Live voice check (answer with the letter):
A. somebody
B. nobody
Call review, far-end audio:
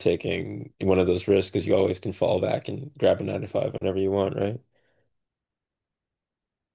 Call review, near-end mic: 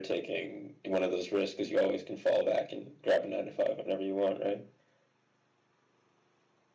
B